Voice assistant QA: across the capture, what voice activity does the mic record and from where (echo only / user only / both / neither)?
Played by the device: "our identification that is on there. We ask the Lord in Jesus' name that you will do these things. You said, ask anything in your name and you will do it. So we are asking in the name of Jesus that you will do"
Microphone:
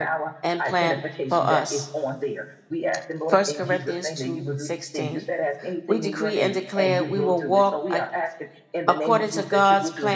both